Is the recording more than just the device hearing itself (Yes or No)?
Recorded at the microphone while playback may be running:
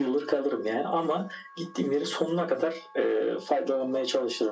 No